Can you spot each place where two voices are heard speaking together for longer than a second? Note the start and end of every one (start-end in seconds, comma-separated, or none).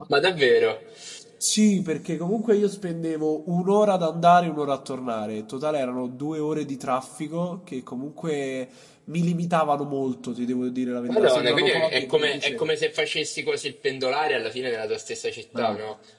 11.1-12.7